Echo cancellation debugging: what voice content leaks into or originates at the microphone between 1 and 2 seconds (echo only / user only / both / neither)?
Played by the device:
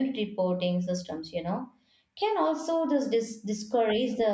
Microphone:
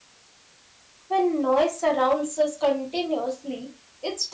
user only